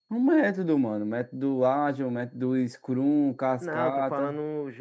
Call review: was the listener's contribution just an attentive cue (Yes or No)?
No